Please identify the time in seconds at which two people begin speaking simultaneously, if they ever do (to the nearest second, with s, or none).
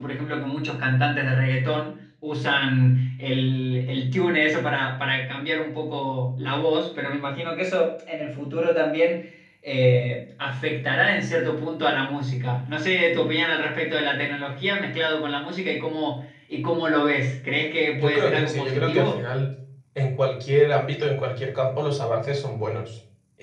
18 s